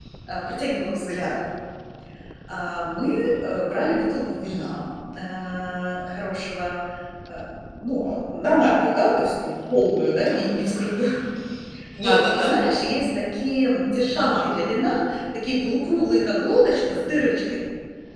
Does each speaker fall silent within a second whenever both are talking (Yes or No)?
Yes